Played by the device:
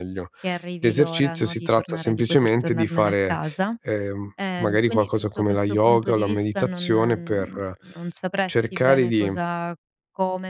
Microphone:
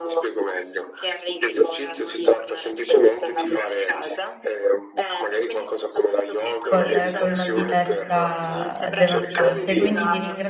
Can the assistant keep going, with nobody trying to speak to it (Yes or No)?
No